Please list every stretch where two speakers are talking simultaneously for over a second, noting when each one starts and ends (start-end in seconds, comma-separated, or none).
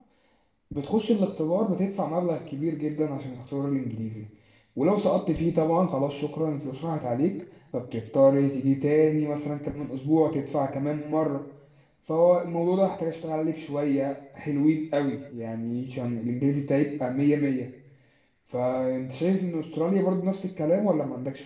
none